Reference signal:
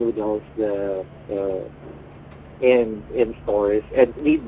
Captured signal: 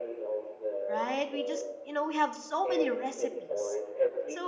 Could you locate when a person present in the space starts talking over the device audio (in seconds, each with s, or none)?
0.9 s